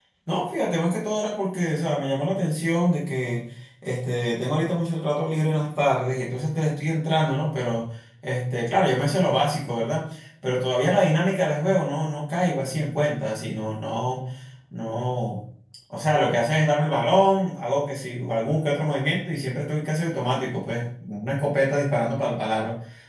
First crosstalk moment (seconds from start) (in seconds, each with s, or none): none